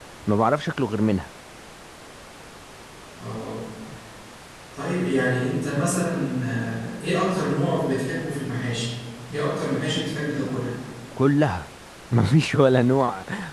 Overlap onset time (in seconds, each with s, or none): none